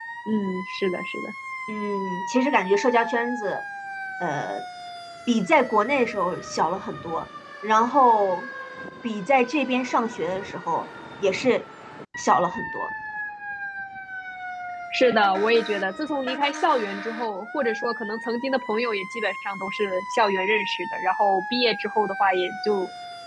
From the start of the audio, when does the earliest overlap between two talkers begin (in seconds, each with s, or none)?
none